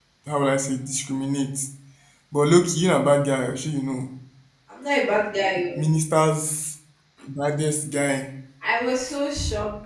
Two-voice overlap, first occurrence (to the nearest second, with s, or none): none